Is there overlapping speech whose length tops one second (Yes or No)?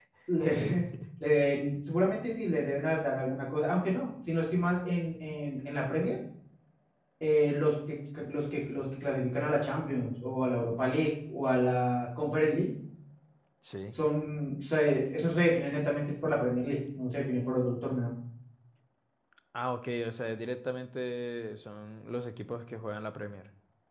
No